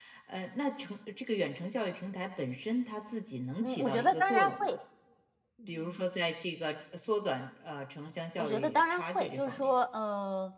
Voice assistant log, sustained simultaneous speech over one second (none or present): present